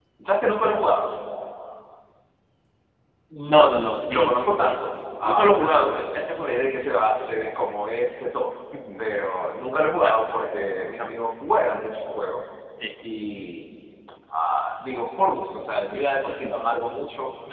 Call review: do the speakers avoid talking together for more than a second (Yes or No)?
No